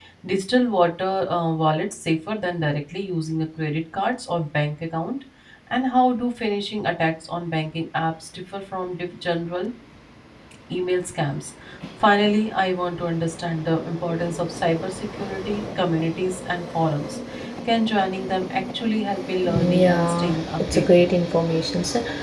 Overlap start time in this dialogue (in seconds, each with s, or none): 19.4 s